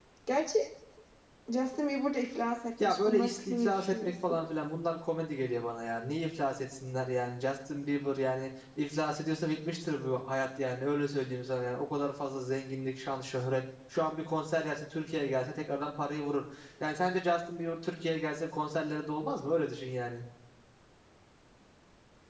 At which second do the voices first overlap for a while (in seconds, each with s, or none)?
2.8 s